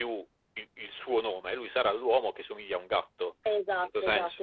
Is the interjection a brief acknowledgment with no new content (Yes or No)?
No